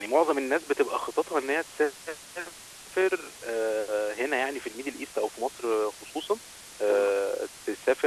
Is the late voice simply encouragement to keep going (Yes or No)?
Yes